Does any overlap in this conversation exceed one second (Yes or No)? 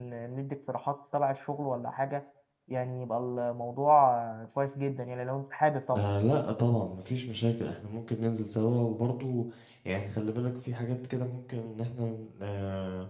No